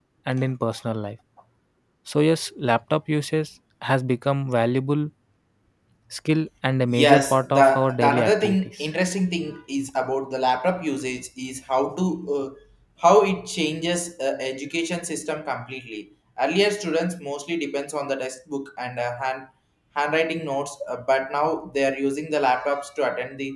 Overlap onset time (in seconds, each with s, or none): 6.9 s